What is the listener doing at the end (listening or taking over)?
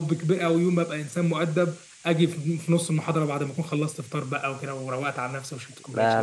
taking over